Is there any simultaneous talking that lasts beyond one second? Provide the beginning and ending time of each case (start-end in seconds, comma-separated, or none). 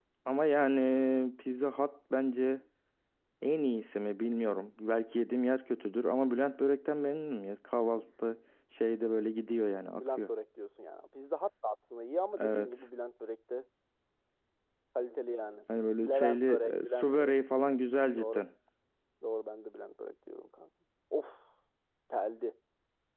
16.1-17.4